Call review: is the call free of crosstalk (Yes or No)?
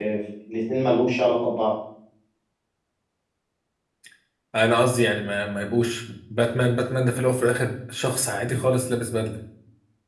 Yes